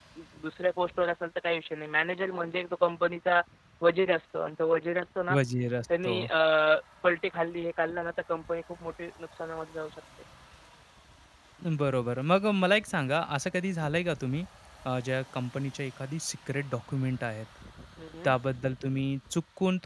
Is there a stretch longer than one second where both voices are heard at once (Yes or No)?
No